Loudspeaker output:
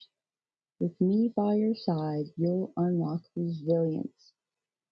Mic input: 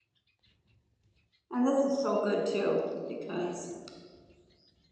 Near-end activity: present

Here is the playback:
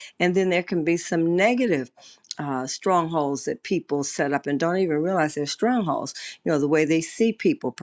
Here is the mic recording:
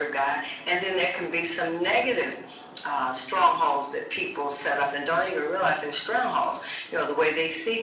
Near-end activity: none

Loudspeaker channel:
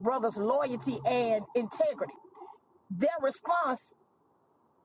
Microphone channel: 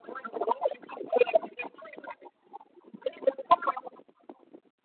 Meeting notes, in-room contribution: none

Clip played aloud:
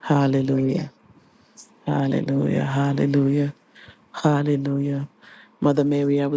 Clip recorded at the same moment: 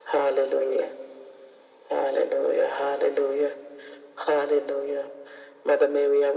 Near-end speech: none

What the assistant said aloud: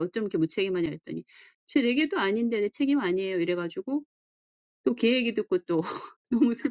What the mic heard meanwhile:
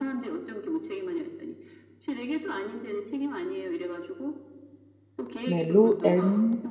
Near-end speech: present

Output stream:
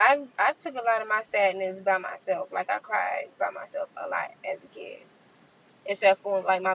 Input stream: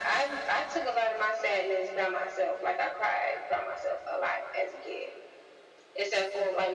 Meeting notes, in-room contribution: none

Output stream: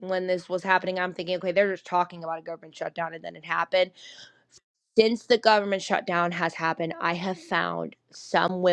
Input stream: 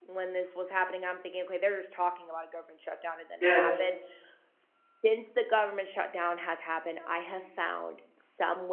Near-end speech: present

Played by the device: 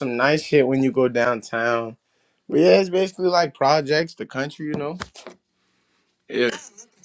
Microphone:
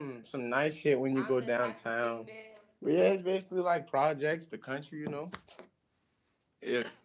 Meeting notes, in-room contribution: present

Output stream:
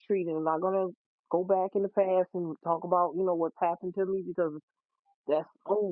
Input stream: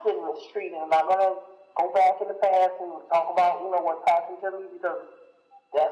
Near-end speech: none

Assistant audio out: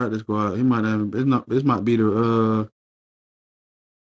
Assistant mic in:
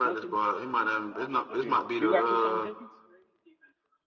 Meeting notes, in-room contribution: present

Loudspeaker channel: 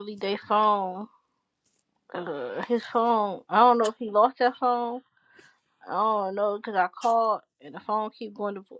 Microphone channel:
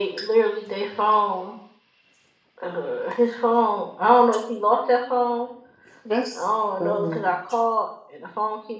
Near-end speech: present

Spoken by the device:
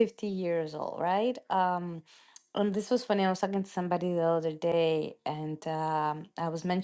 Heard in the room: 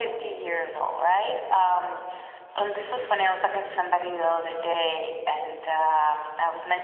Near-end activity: none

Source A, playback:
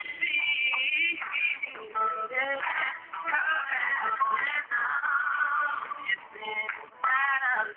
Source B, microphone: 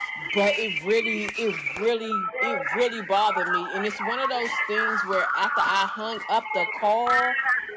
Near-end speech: present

